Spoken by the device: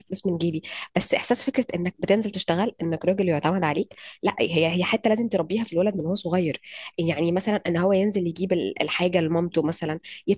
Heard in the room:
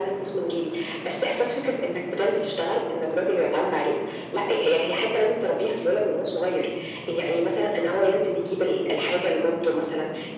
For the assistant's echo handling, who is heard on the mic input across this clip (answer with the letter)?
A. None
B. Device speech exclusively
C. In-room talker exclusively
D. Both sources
B